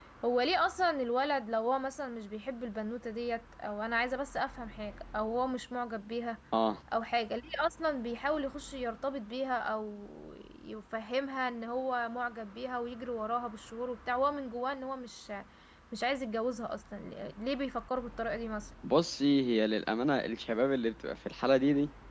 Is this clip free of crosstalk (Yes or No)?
Yes